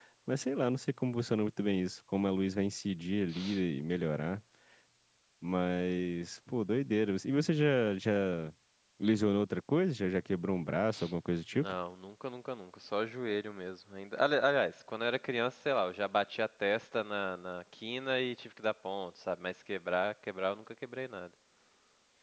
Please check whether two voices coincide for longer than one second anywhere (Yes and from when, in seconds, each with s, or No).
No